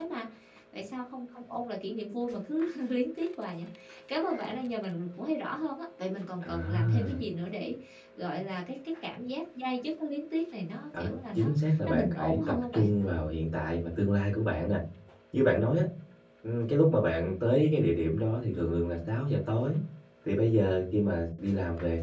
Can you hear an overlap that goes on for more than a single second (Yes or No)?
Yes